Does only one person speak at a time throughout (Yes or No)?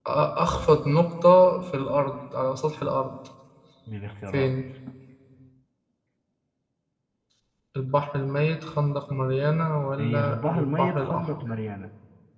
No